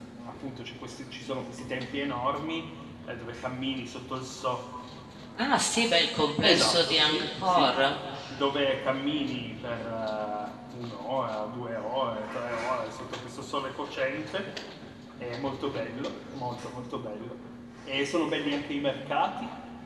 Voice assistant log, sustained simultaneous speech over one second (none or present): present